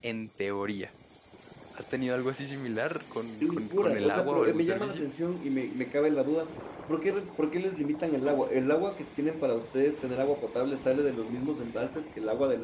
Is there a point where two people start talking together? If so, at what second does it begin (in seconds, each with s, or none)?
3.4 s